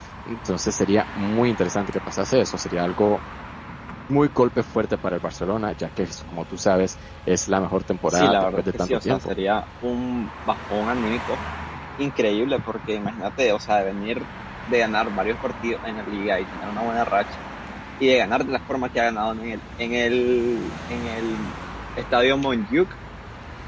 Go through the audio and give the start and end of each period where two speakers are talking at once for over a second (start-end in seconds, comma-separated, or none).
8.1-9.3